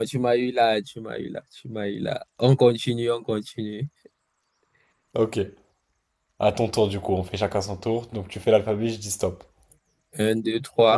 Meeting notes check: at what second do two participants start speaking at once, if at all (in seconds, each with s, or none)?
none